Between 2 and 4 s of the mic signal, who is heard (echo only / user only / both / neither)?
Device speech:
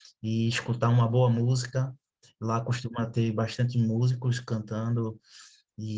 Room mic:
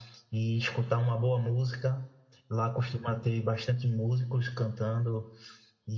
echo only